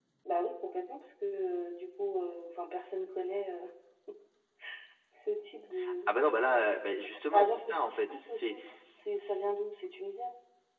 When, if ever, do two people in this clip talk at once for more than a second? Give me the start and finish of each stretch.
7.3-8.5

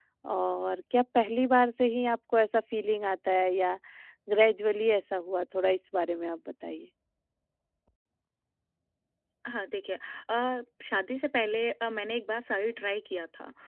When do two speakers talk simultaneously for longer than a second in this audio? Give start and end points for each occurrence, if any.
none

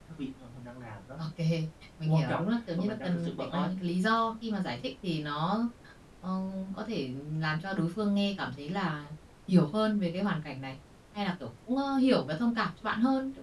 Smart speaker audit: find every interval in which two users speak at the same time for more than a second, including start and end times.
2.1-3.6

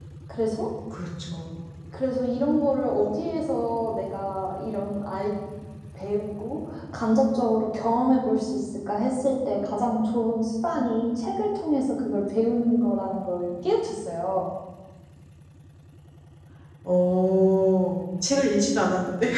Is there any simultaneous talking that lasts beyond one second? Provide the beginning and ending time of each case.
none

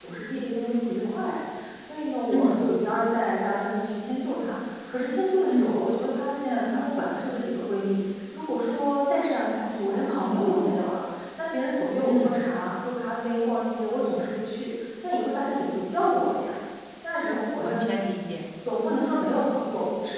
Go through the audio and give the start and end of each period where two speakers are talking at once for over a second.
none

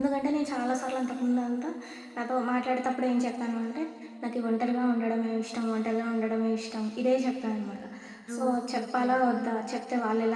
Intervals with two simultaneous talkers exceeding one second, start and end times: 8.4-9.6

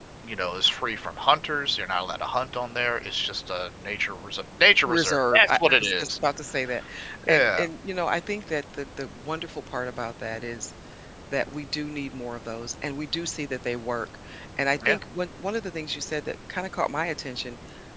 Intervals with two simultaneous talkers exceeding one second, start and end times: 4.8-6.2

